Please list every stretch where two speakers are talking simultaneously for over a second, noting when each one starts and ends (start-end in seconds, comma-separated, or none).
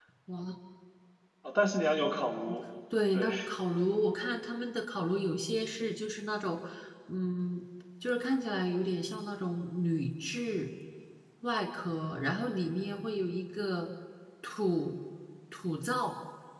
none